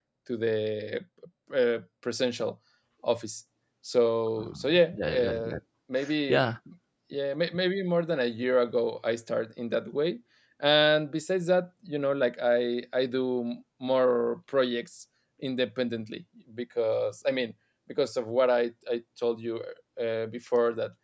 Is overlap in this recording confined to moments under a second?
No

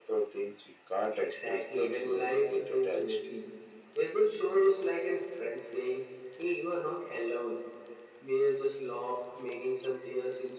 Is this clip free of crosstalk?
No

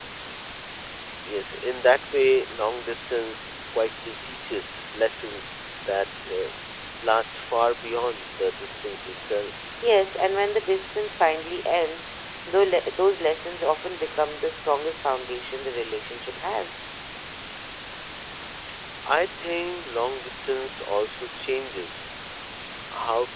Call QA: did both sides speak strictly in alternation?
Yes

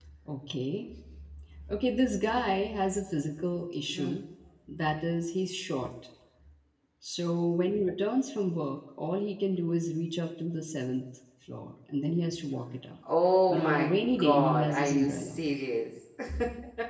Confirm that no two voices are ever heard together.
No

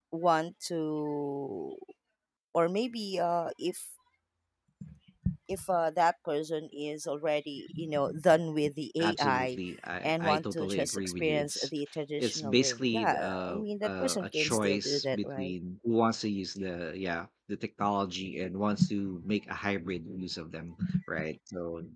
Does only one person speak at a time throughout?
No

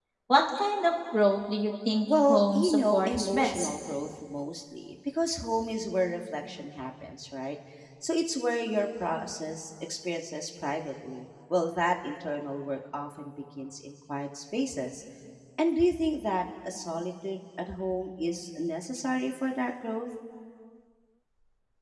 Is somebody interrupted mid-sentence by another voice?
Yes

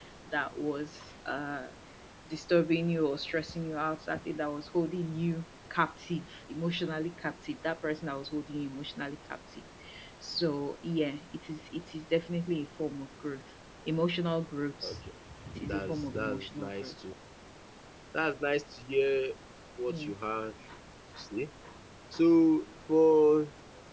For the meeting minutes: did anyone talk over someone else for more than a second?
Yes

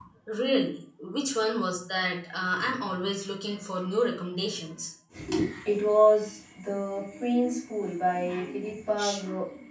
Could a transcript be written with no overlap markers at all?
Yes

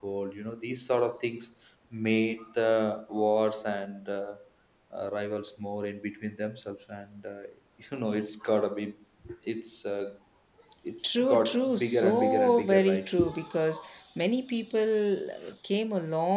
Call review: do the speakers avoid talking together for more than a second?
No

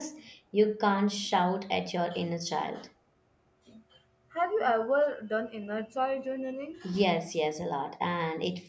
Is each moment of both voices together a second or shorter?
Yes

